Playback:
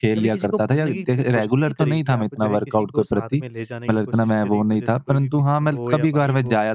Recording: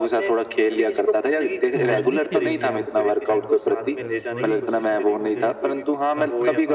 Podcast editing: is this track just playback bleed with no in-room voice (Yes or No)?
No